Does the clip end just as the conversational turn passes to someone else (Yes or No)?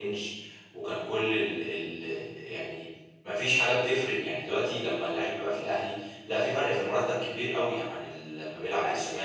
Yes